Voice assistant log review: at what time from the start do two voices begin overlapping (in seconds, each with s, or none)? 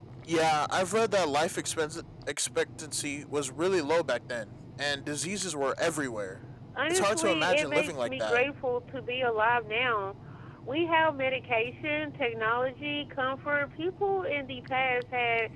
6.9 s